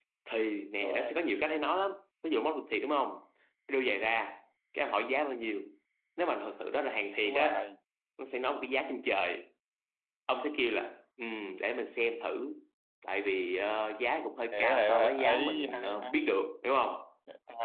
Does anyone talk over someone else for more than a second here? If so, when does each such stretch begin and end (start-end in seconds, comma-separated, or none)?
14.5-16.3